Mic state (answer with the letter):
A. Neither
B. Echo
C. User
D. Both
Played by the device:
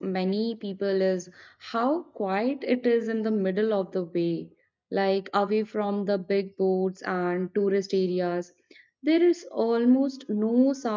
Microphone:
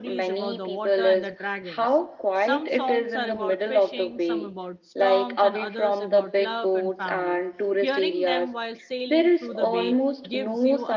D